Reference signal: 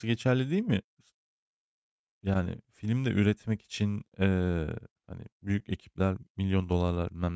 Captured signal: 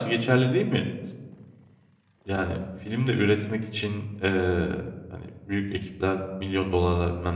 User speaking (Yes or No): No